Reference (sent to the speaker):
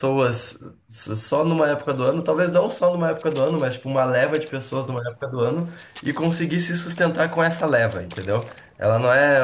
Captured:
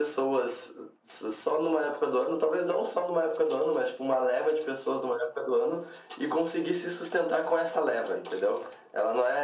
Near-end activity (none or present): none